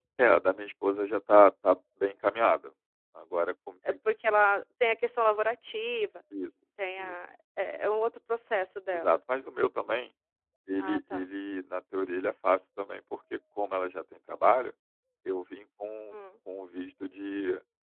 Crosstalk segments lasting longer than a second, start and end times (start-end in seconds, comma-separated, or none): none